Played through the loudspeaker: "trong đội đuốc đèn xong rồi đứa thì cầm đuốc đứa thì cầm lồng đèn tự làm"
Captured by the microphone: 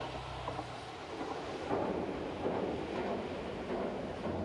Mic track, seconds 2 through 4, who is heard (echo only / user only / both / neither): neither